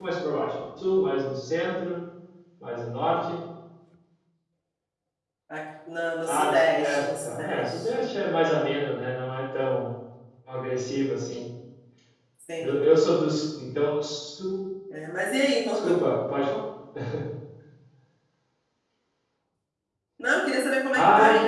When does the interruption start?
6.3 s

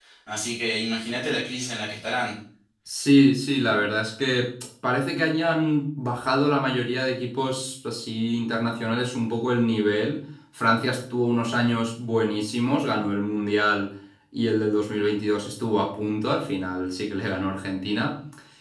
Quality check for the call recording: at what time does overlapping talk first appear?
none

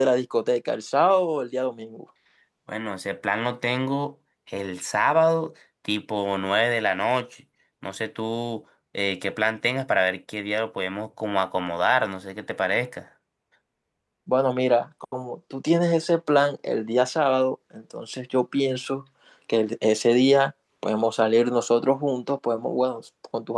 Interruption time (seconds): none

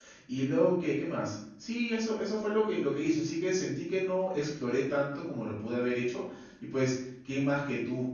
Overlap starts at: none

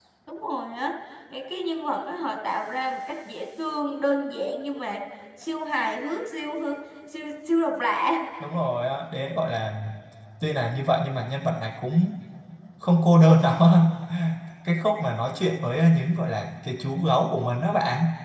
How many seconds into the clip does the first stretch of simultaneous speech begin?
none

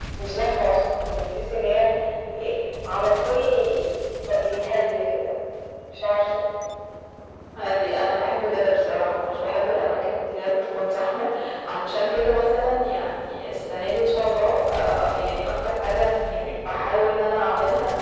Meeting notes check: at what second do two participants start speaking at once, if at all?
none

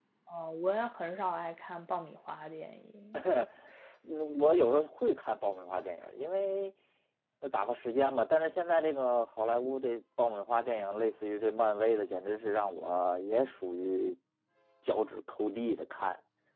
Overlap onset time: none

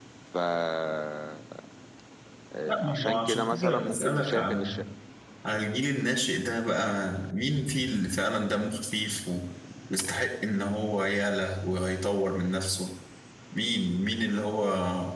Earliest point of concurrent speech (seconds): 2.7 s

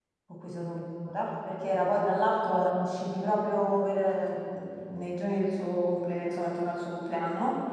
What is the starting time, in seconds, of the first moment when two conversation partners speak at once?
none

